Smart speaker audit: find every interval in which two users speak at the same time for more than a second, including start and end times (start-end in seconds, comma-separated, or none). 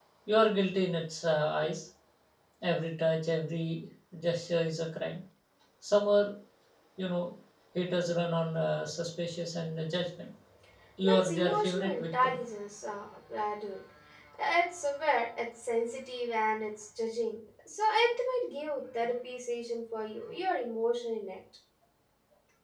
11.0-12.4